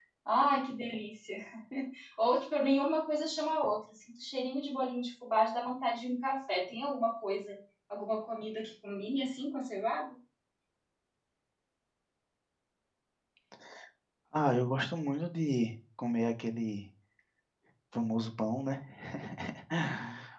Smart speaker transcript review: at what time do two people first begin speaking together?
none

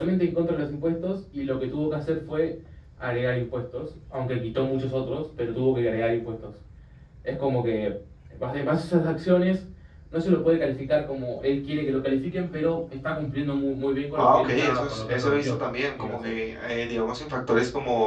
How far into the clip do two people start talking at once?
14.2 s

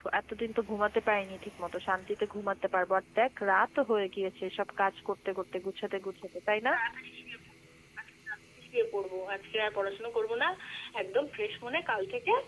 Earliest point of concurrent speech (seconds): none

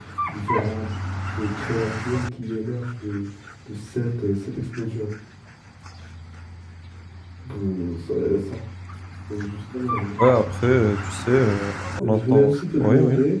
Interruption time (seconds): 12.0 s

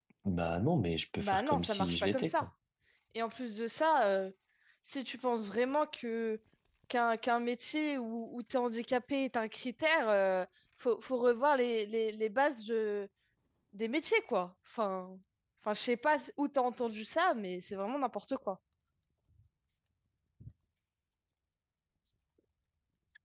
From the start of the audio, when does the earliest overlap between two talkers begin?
1.2 s

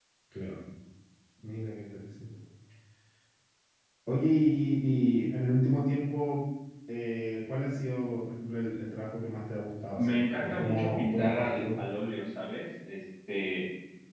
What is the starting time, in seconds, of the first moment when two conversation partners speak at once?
10.0 s

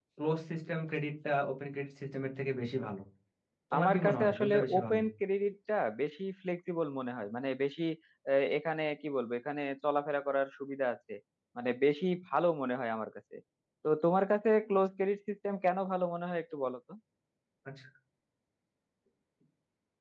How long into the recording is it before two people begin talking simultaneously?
3.8 s

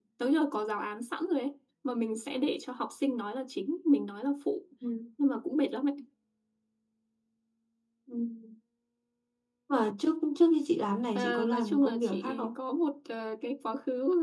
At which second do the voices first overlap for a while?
11.2 s

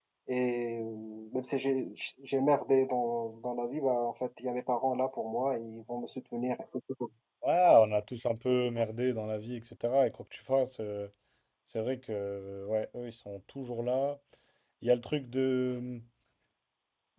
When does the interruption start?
none

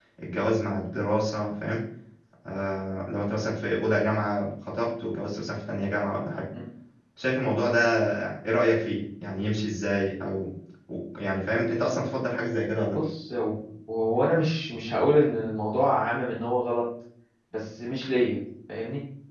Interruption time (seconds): none

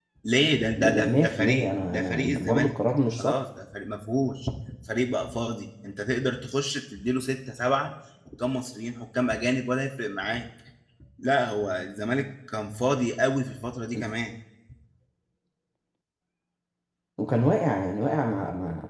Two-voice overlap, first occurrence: 0.8 s

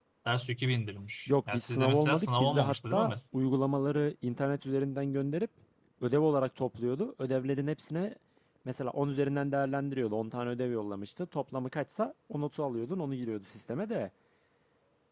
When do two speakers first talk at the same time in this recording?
1.3 s

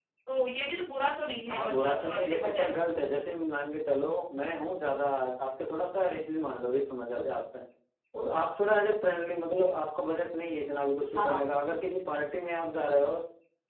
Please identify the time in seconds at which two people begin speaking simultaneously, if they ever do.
1.5 s

